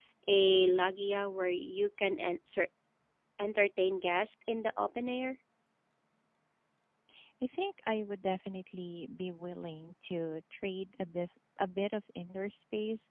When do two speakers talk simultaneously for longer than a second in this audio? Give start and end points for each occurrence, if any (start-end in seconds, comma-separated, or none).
none